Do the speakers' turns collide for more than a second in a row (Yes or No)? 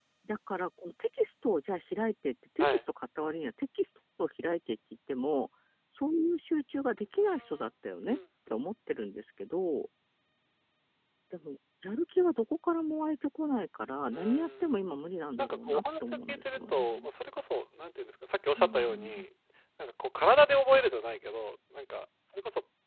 Yes